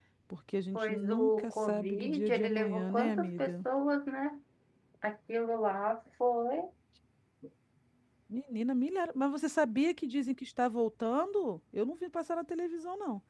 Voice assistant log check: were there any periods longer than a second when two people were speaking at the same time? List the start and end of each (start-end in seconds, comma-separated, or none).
0.7-3.6